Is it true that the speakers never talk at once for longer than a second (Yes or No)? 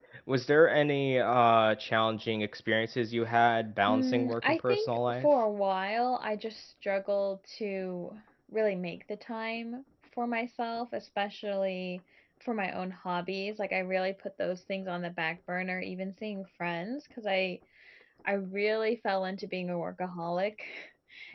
No